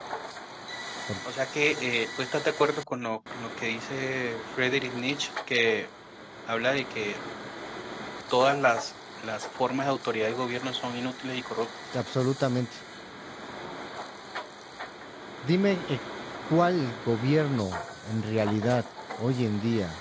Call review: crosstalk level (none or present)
none